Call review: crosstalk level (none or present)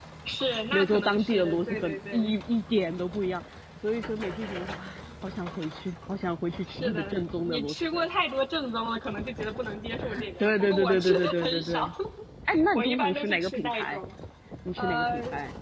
present